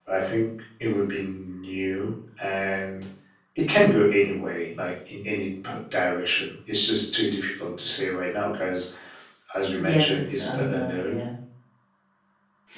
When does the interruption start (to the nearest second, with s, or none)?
10 s